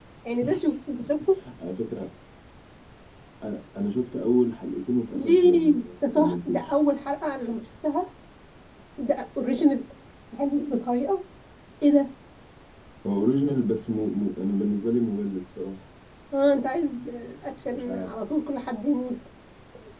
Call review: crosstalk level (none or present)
present